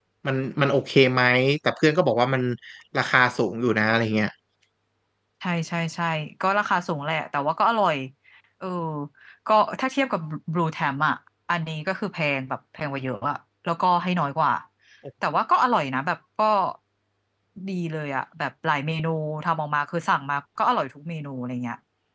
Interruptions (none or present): none